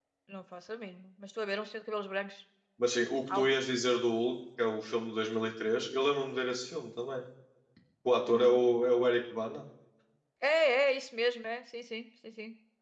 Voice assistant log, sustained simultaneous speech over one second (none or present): none